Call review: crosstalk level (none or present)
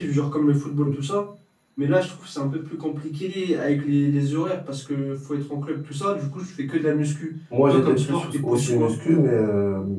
present